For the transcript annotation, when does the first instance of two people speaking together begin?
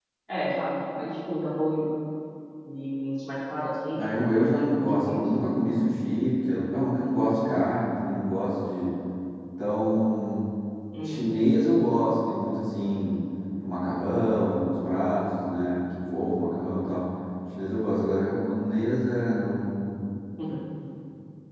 4.0 s

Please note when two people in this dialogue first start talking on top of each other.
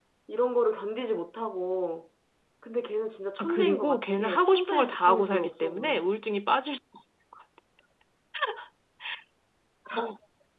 3.4 s

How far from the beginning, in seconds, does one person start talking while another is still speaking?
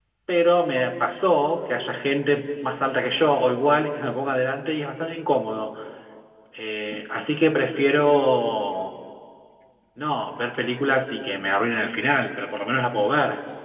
none

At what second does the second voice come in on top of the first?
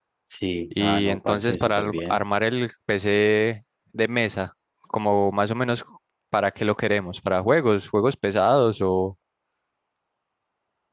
0.8 s

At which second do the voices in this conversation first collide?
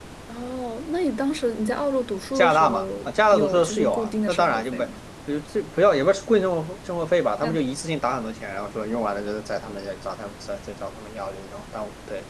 2.4 s

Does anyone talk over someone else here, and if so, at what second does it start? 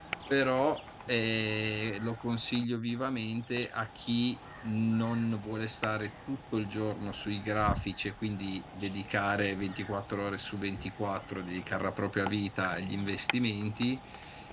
none

